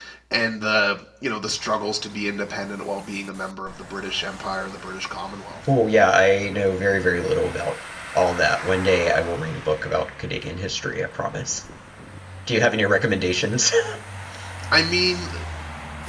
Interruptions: none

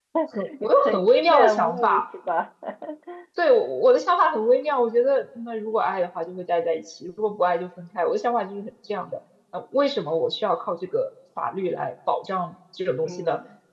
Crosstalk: present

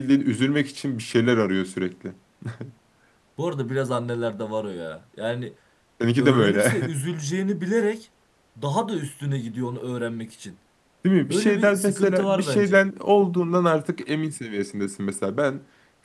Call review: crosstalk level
present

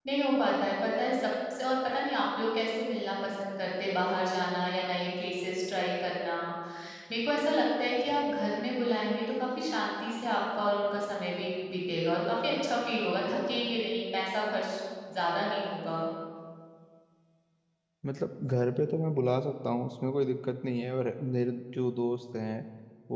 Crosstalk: none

